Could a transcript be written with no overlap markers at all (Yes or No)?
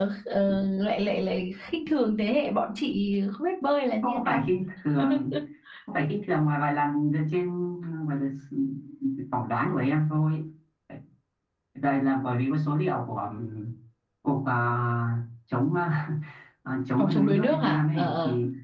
No